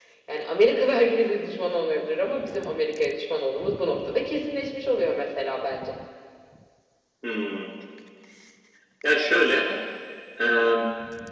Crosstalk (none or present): none